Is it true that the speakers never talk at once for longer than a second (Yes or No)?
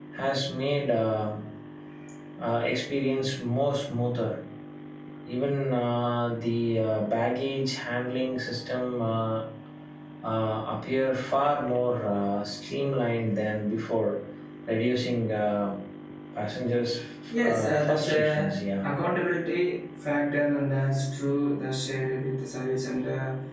No